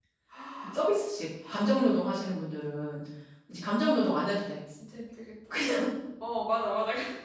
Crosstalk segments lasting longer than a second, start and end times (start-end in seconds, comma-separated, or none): none